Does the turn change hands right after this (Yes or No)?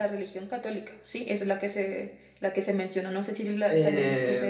Yes